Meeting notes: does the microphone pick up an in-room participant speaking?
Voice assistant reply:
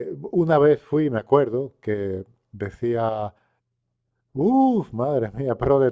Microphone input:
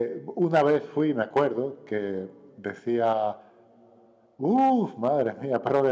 No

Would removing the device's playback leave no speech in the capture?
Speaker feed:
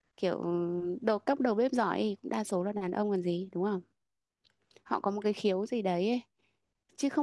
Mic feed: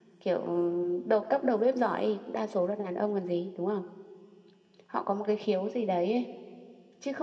Yes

